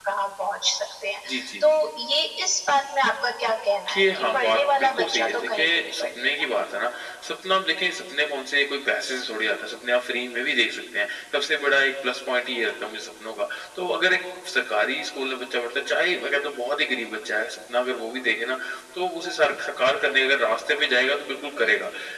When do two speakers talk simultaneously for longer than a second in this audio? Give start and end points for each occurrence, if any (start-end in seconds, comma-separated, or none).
3.9-6.5